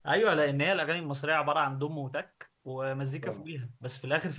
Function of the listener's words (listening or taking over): listening